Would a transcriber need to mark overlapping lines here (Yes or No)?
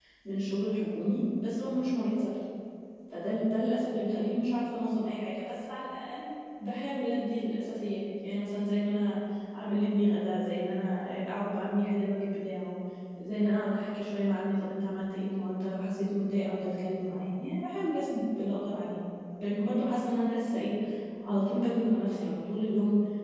No